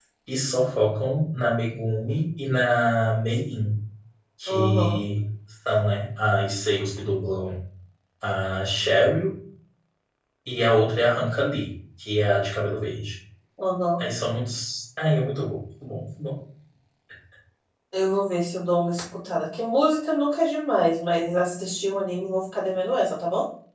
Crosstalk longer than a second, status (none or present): none